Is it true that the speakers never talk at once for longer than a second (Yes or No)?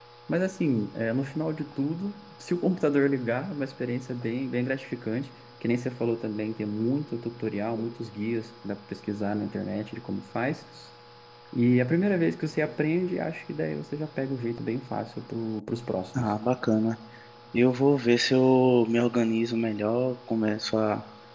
Yes